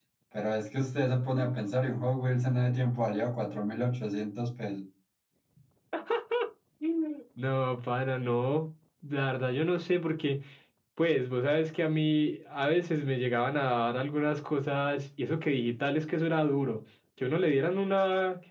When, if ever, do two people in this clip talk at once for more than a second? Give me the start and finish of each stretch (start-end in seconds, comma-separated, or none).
none